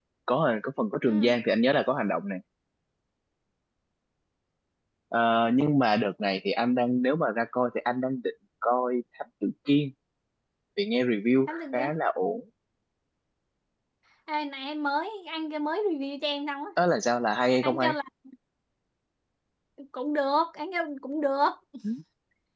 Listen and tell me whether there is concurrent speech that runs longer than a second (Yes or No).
No